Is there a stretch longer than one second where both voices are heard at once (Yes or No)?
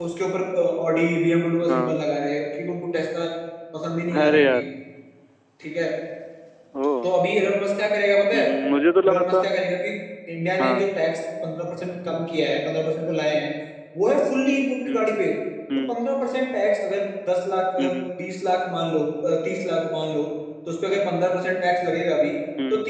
No